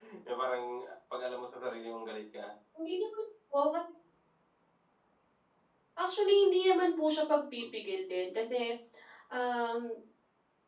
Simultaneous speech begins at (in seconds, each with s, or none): none